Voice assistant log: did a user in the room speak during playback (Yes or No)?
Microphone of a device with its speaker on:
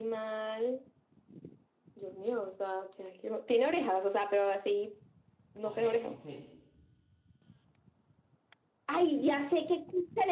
Yes